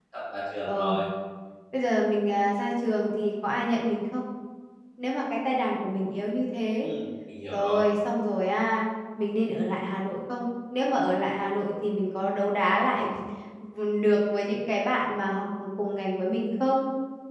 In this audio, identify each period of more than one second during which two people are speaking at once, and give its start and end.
none

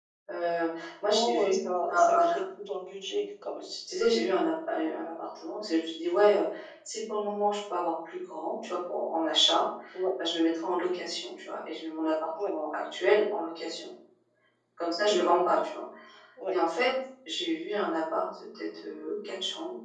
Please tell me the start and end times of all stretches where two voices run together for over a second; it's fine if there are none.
none

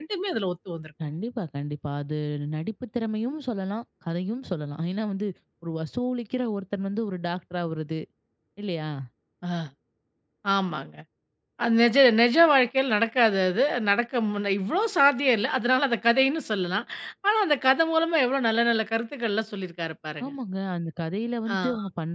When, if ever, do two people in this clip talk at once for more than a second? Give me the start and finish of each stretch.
none

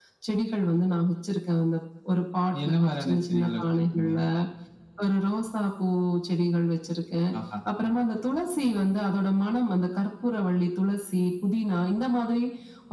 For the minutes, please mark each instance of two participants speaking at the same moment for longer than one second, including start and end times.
2.6-4.1

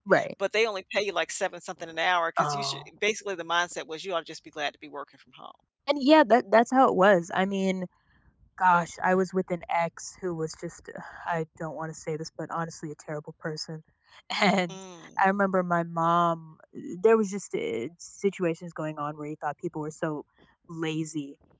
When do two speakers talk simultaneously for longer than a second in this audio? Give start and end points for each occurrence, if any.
none

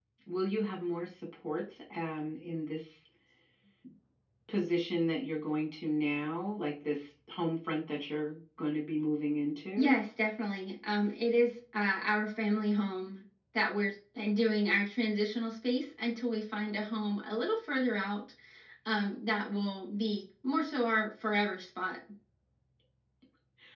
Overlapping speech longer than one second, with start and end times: none

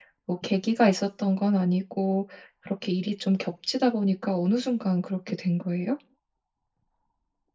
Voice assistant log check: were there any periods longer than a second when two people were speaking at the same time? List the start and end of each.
none

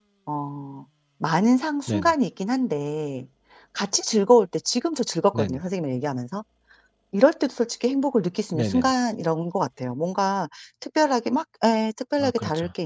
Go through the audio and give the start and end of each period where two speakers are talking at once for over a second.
none

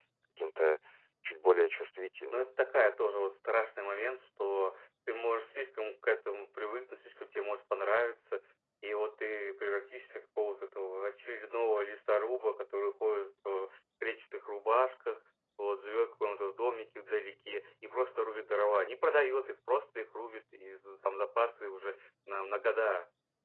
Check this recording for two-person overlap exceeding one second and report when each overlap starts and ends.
none

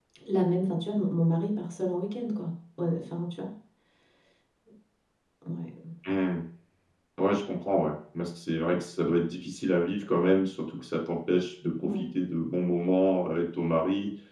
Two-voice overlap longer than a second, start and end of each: none

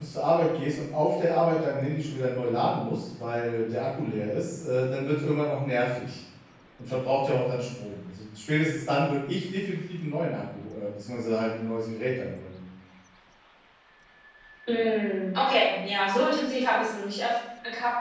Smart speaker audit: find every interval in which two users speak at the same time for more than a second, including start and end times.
none

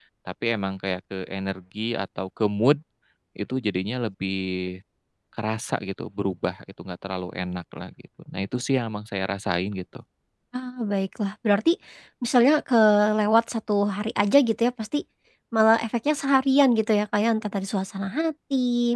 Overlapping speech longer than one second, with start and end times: none

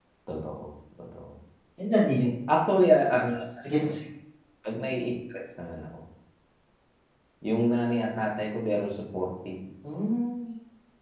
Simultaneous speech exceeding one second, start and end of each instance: none

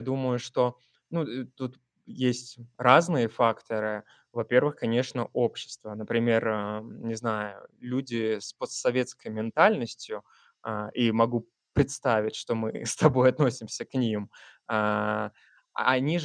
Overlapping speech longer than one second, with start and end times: none

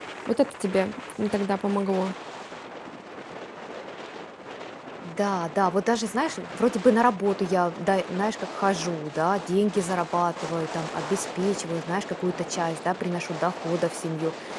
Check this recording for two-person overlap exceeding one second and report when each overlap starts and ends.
none

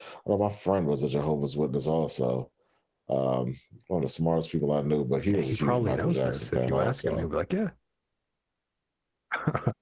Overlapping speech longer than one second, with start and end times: 5.3-7.3

